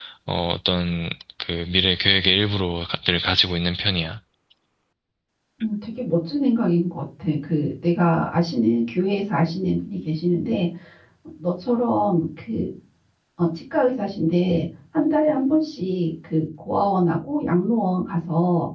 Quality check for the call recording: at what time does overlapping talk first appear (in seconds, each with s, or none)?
none